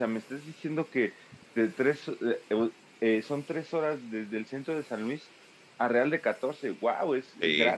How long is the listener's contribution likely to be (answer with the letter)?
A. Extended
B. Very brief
A